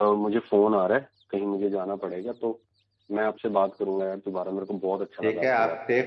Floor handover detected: Yes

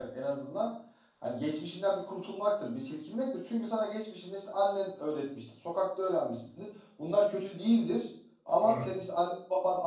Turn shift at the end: No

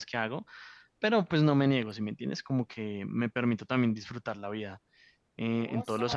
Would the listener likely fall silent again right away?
No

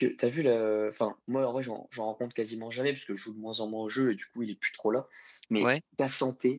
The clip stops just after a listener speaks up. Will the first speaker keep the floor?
Yes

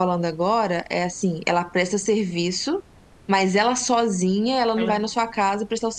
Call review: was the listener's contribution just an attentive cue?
Yes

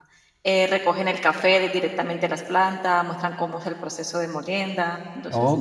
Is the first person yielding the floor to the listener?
Yes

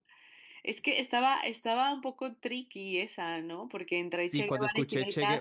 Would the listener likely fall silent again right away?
No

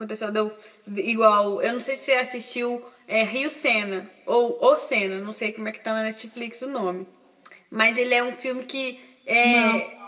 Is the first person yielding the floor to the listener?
No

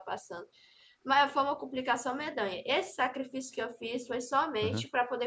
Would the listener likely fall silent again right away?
Yes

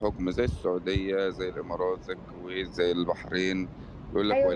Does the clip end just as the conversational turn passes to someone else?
Yes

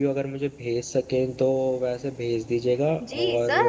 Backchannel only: No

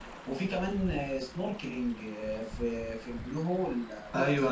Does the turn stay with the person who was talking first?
No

